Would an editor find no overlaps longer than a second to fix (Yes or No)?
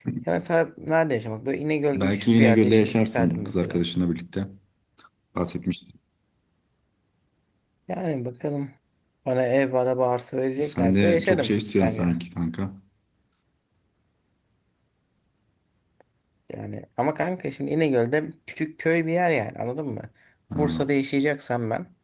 No